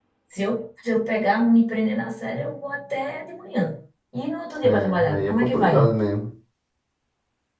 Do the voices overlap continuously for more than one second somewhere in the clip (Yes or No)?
Yes